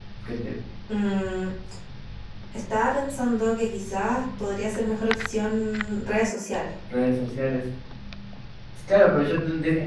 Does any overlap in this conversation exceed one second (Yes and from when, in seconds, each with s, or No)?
No